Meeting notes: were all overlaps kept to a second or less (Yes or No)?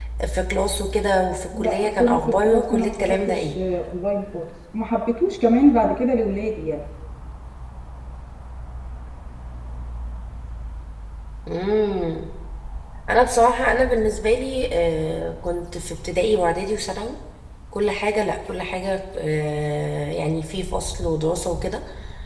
No